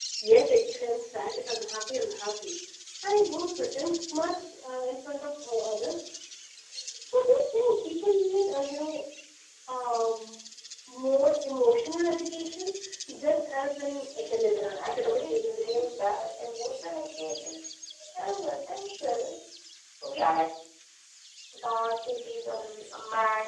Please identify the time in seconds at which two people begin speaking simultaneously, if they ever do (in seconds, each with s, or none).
14.1 s